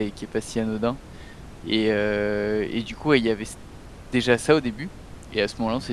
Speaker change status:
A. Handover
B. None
B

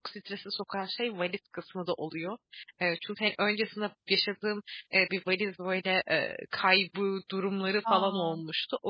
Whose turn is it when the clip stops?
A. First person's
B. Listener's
A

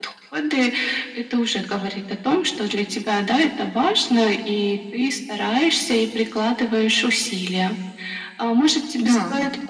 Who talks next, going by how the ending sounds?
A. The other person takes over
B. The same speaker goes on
B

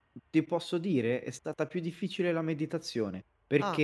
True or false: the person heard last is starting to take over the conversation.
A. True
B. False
B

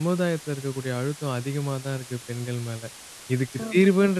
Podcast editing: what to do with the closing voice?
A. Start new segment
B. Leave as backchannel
B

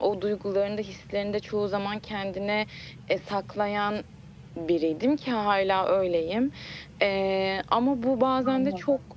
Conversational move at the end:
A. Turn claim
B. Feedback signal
B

